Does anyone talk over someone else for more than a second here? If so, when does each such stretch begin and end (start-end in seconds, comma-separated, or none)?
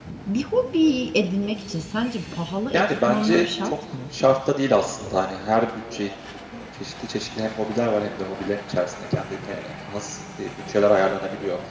2.7-4.0